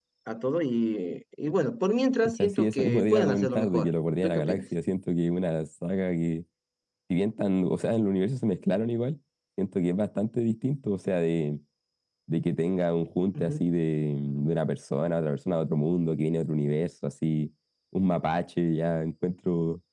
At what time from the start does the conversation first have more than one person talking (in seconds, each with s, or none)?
2.2 s